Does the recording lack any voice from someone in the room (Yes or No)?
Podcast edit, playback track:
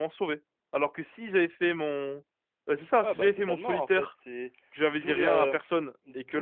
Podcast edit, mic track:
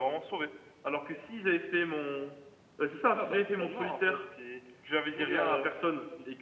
Yes